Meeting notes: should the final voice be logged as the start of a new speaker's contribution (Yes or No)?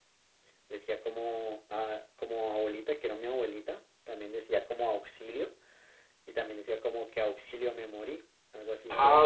Yes